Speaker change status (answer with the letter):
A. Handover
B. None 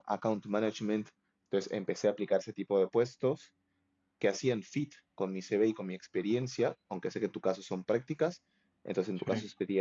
B